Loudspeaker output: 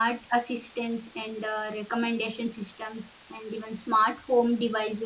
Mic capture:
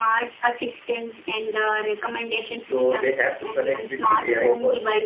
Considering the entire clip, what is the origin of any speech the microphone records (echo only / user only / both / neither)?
both